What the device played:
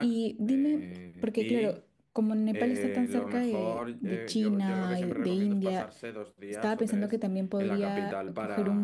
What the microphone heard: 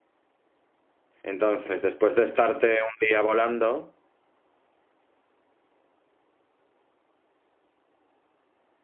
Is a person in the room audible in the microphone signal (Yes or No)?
Yes